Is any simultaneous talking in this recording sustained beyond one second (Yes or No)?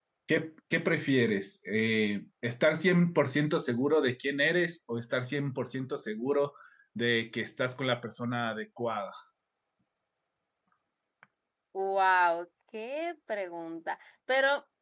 No